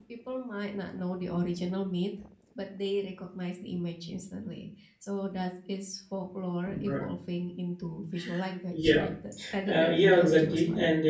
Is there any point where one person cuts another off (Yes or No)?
Yes